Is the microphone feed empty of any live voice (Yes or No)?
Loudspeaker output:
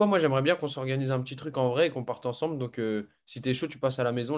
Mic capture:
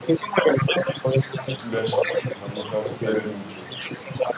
No